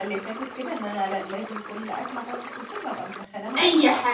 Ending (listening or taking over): taking over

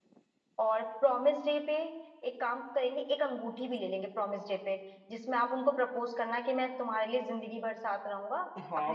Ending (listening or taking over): taking over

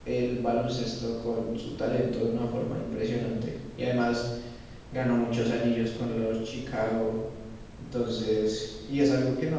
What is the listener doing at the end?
listening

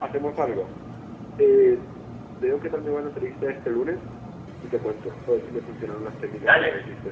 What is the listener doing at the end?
taking over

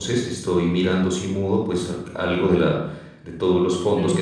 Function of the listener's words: taking over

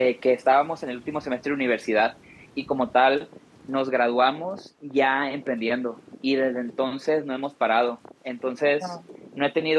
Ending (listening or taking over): listening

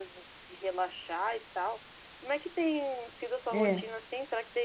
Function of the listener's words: listening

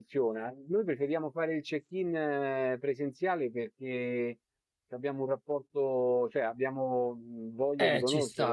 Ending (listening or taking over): taking over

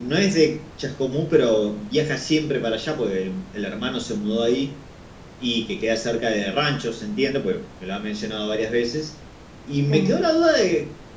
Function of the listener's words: listening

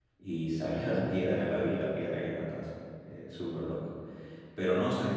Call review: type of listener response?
listening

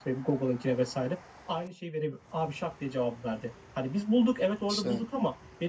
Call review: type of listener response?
listening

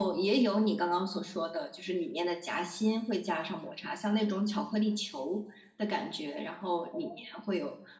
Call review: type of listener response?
listening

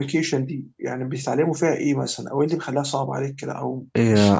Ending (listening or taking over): taking over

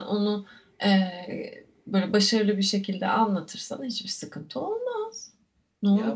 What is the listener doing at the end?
taking over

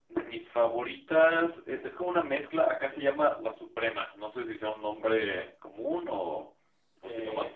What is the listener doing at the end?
taking over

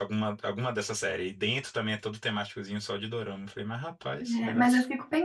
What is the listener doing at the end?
taking over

